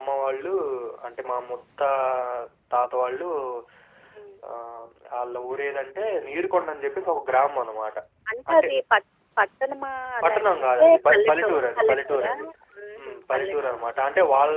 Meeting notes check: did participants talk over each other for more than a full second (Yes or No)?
Yes